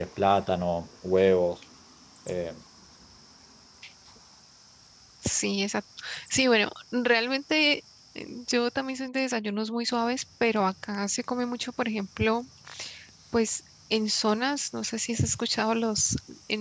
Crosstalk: none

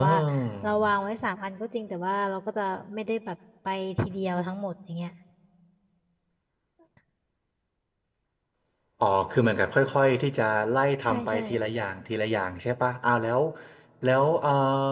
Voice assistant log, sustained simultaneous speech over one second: none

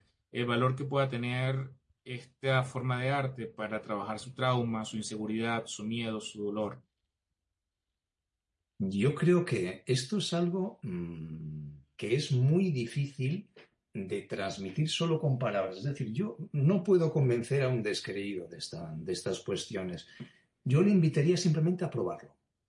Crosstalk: none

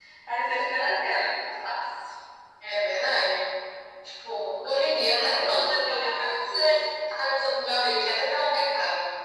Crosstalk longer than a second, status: present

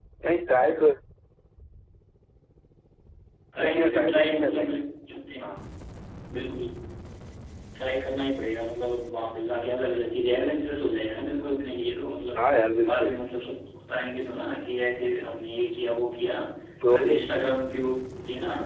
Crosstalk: present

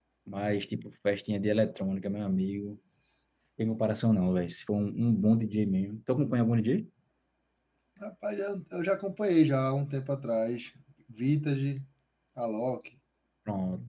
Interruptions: none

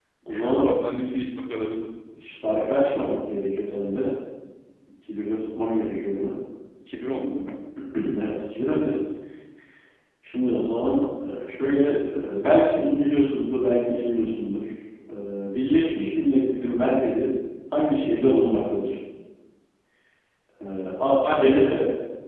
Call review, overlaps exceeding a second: none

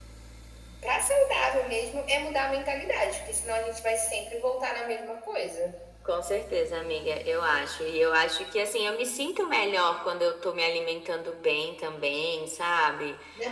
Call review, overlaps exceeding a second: none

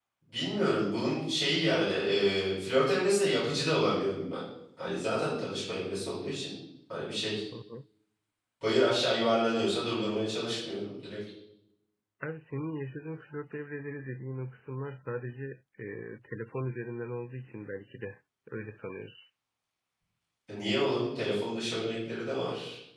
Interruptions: none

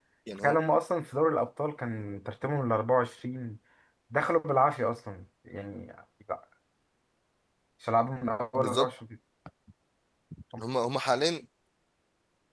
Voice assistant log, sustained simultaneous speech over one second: none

